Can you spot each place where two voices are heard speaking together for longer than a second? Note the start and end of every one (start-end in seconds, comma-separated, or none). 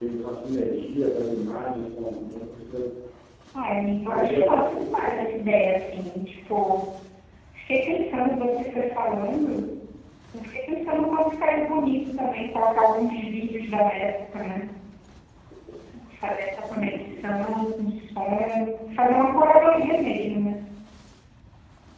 4.1-5.3